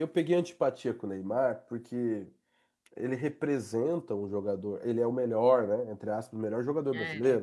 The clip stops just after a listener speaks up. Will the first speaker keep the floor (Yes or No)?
Yes